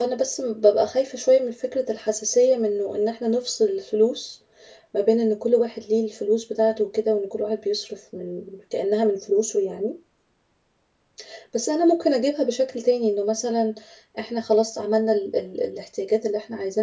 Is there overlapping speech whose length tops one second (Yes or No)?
No